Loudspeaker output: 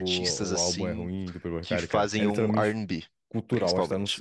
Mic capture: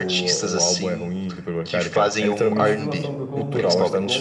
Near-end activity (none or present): present